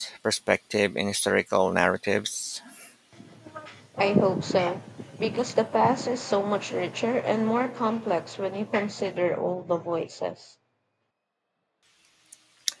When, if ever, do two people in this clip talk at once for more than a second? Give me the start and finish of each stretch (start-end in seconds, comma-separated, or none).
none